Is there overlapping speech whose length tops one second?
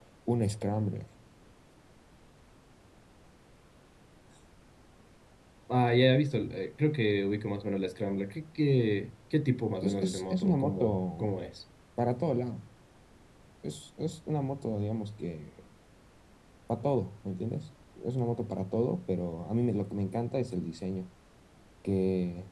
Yes, from 9.8 s

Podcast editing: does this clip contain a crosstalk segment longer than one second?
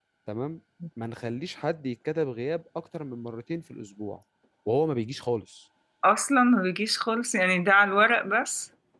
No

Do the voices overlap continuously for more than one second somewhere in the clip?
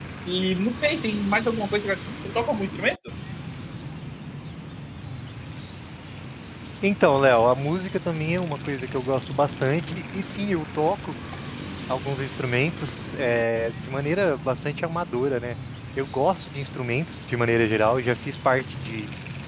No

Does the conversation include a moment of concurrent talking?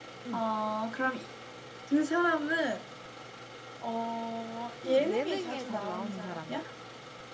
Yes, from 4.8 s

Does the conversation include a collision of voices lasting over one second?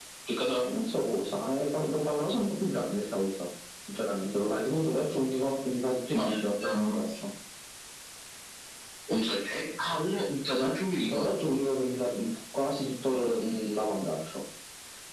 No

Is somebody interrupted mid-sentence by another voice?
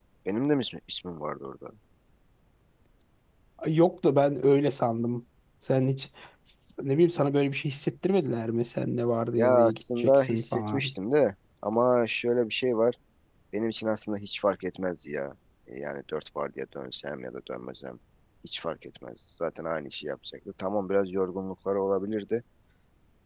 Yes, from 9.3 s

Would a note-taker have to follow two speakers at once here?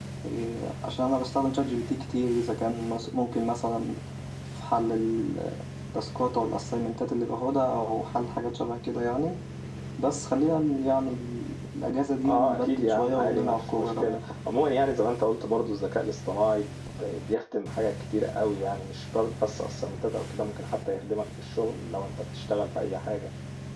Yes, from 12.2 s

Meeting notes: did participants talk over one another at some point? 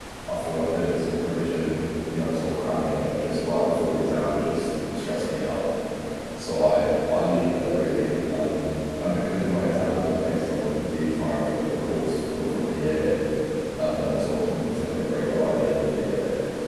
No

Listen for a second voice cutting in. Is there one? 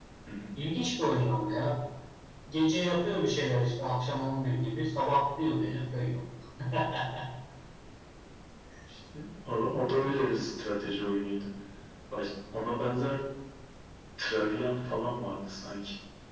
No

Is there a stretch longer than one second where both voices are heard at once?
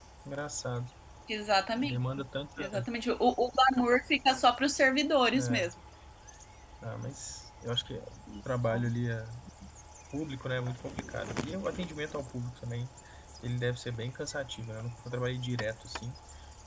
No

